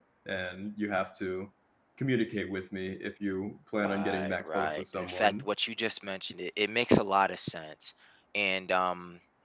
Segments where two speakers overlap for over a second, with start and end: 3.8-5.5

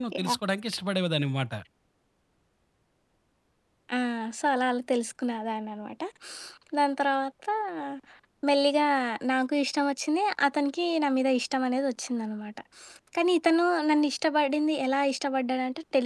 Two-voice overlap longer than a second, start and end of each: none

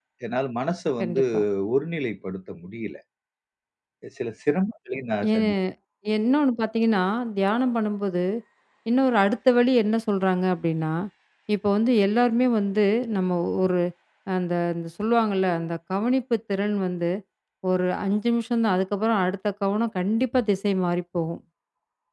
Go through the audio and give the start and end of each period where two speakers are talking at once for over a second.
none

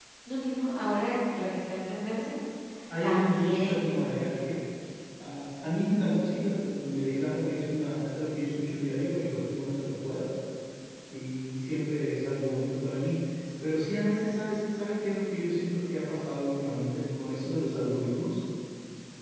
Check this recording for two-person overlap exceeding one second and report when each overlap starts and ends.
3.0-4.3

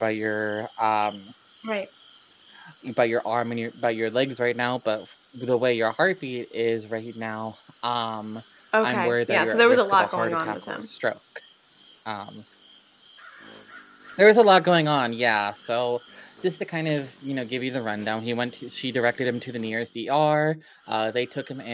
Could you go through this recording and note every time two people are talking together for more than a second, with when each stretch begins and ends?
8.8-10.9

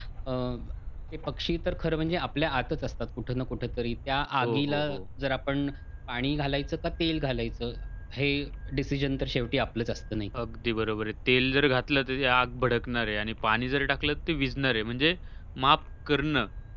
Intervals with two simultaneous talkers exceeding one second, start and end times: none

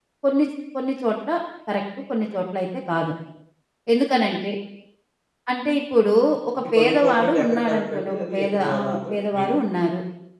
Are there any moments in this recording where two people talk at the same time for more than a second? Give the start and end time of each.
6.6-9.5

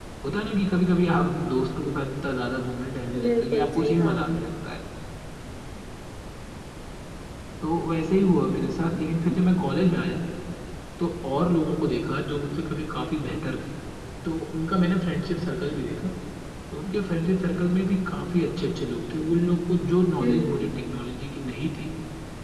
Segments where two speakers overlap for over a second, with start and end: 3.3-4.5

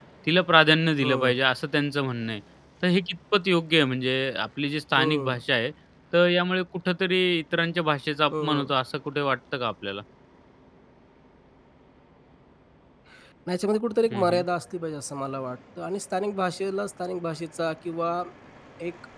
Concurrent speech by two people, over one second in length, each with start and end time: none

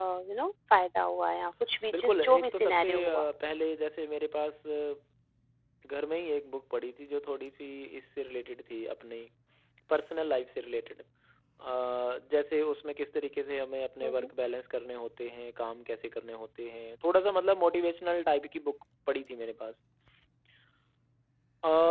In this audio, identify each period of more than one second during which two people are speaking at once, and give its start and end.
1.9-3.3

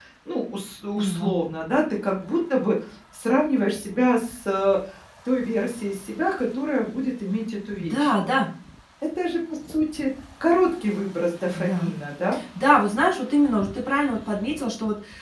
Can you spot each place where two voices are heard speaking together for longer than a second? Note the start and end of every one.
none

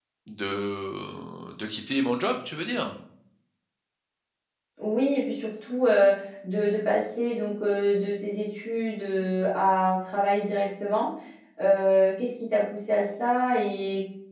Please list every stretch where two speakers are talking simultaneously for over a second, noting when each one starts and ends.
none

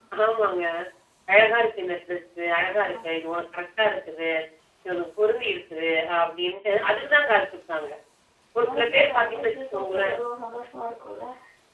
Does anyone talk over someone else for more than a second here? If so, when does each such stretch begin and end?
8.6-10.2

